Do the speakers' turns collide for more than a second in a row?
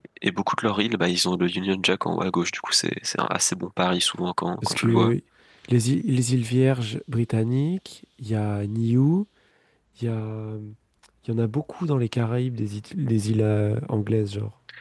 No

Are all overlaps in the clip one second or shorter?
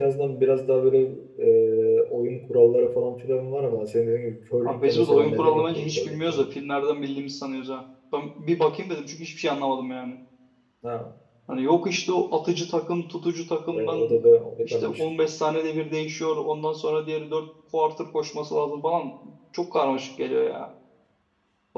No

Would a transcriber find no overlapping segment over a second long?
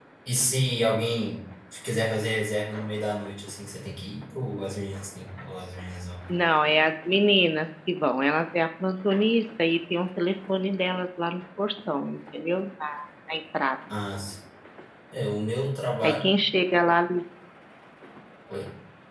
Yes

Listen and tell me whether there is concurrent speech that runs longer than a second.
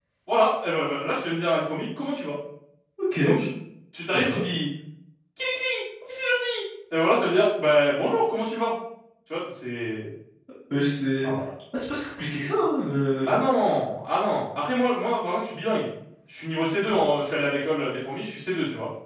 No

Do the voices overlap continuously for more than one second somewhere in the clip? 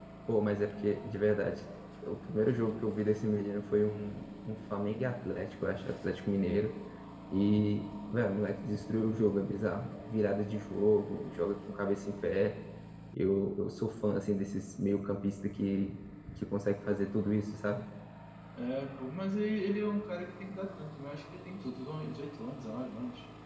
No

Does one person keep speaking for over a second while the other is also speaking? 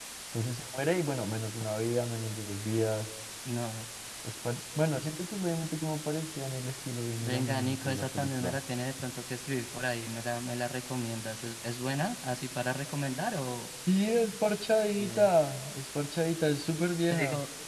Yes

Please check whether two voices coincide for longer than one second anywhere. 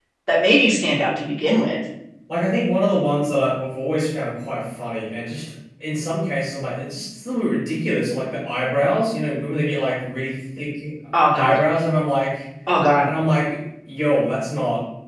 No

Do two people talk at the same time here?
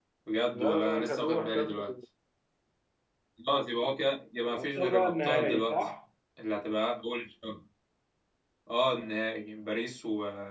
Yes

